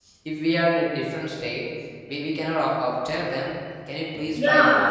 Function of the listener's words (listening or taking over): taking over